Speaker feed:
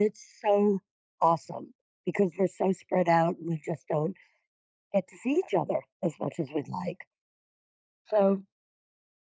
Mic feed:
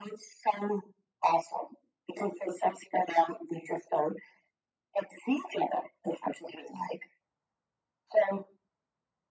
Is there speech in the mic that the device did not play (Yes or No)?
No